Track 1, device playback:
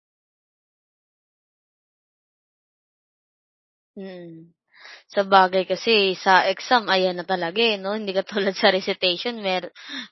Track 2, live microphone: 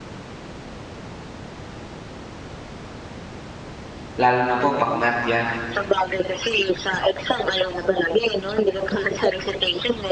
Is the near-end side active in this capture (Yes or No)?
Yes